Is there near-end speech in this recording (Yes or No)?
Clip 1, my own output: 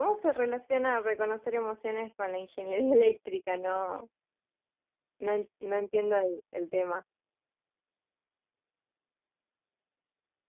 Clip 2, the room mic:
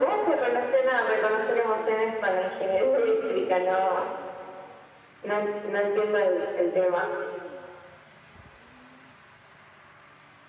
No